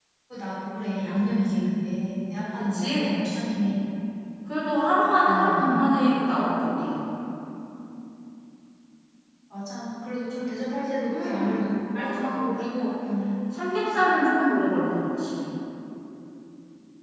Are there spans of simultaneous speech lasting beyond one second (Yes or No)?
Yes